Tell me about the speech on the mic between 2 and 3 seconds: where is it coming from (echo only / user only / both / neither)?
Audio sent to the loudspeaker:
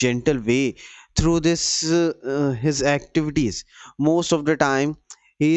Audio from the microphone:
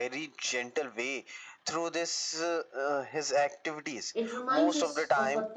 echo only